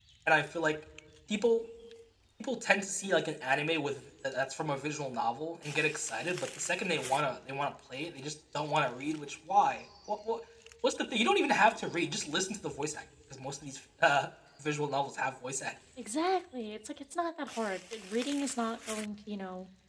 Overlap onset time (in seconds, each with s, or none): none